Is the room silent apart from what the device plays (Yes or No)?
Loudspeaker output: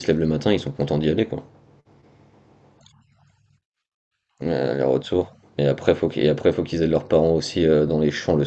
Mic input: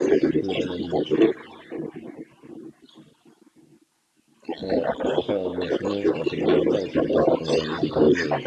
No